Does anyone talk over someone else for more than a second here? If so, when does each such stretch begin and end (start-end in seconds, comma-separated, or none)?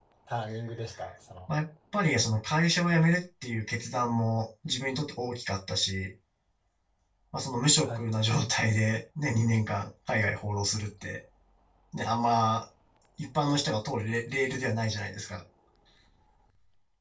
none